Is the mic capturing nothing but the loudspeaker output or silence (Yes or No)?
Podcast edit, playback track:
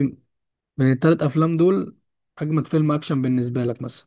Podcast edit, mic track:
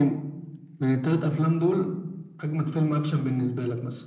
Yes